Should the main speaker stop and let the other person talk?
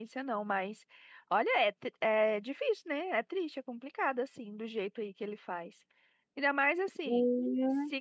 No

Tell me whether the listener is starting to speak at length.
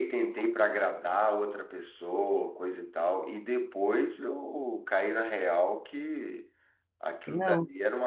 No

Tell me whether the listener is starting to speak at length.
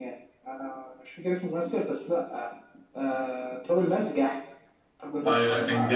Yes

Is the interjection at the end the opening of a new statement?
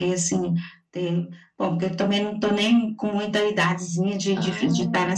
No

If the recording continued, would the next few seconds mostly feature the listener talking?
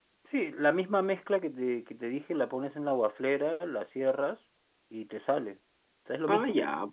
Yes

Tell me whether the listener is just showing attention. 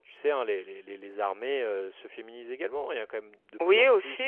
No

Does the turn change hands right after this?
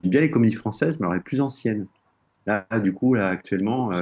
No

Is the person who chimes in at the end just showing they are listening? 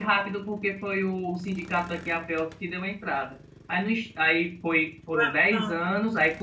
Yes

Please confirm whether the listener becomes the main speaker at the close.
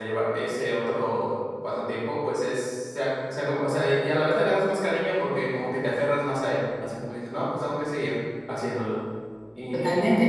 Yes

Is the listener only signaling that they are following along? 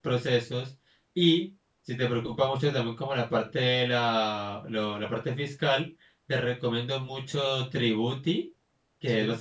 Yes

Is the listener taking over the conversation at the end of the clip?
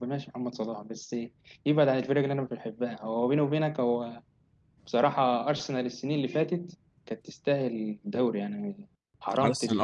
Yes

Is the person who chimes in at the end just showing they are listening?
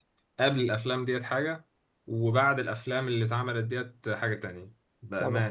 No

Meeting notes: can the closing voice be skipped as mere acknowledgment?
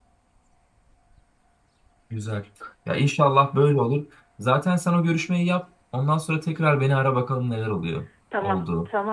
No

